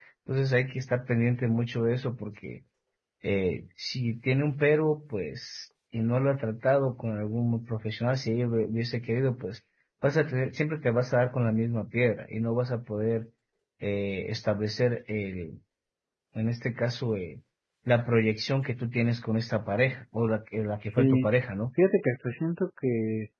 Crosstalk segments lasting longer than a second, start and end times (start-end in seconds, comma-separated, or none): none